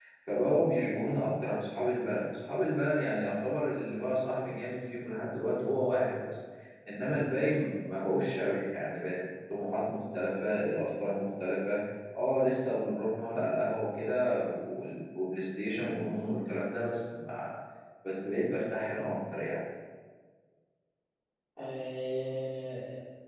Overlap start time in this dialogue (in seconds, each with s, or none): none